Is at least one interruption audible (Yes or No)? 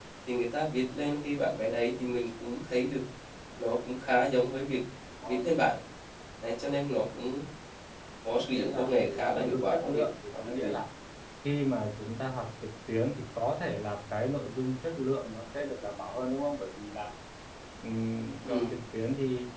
Yes